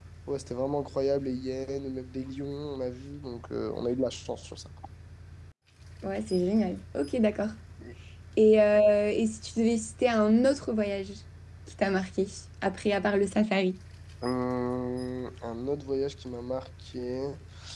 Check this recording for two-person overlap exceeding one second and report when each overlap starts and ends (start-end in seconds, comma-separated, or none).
none